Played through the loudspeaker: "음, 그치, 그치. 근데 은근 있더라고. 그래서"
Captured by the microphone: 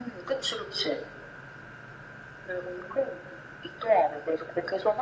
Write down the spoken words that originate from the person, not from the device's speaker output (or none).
none